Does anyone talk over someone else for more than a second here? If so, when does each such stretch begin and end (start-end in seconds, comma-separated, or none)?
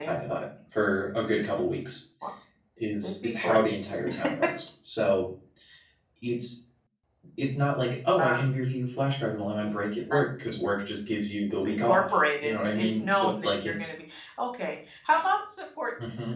11.5-13.9